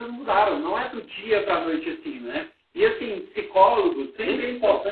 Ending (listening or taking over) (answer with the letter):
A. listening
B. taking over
A